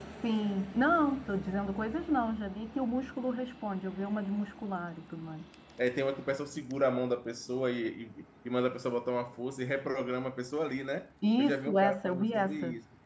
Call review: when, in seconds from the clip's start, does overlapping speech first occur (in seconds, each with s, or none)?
11.2 s